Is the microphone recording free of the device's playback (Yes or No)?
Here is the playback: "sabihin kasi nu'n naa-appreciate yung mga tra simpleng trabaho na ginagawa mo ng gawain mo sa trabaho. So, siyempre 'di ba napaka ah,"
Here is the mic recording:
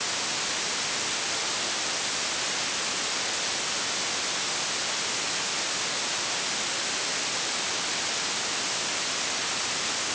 Yes